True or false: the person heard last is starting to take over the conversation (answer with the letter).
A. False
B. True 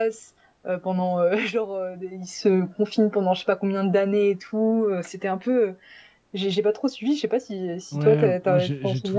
B